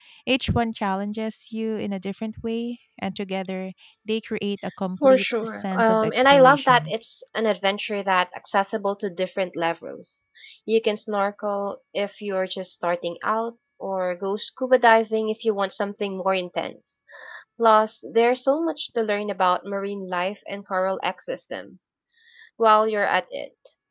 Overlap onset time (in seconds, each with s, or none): 5.0 s